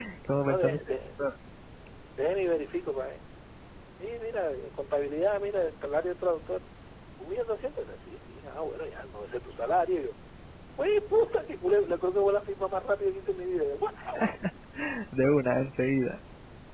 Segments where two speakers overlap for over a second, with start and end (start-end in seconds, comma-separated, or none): none